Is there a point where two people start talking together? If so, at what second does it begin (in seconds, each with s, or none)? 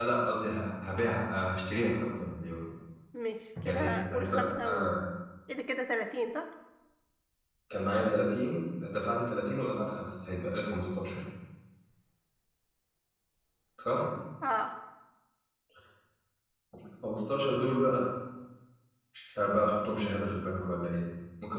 3.7 s